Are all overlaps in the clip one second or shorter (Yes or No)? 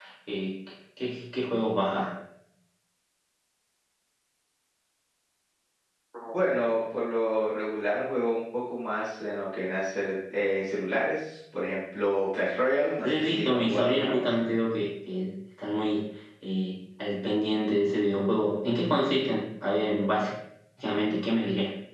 No